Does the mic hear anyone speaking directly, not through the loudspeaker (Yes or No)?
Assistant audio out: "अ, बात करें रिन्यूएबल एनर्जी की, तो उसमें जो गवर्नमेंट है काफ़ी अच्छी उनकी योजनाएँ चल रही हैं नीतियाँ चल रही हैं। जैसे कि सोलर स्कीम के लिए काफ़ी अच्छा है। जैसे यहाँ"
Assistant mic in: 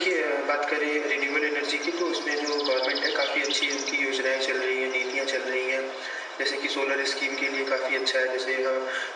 No